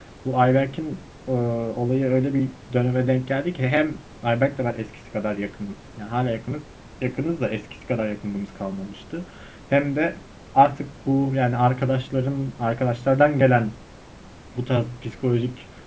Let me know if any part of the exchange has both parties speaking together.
No

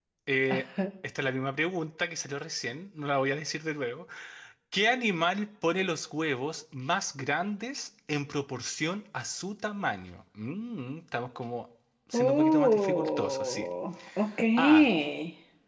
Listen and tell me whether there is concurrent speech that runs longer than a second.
Yes, from 12.1 s

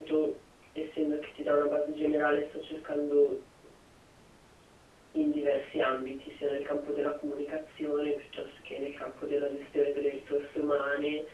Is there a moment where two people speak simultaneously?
No

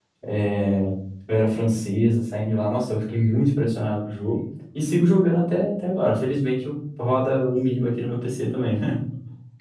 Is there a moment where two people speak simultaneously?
No

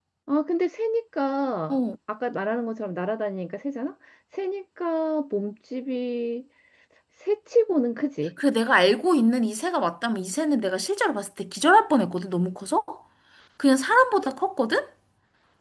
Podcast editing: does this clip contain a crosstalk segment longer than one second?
No

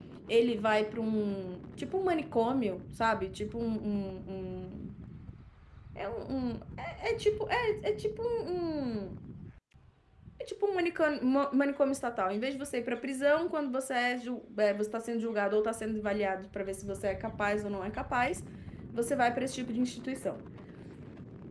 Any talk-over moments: No

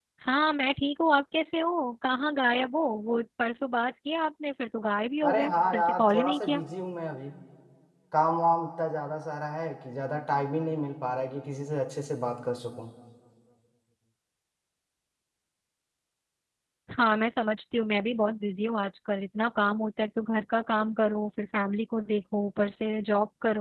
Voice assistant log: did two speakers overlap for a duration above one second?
Yes, from 5.2 s

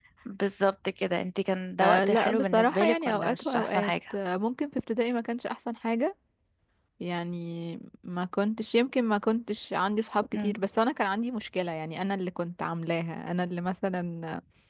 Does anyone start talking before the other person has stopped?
Yes, from 1.8 s

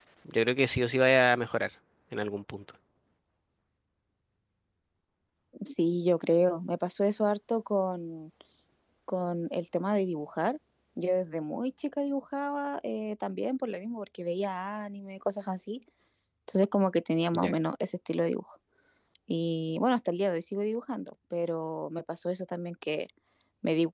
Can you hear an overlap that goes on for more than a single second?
No

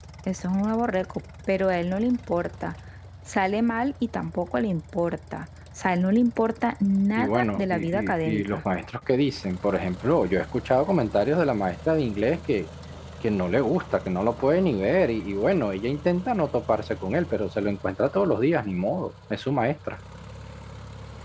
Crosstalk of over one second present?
Yes, from 7.2 s

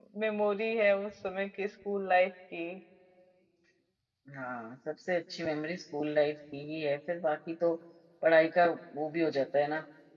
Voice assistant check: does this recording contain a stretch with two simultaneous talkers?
No

